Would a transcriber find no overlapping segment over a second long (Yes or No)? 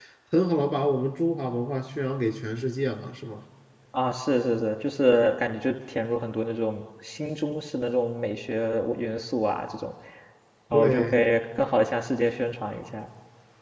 Yes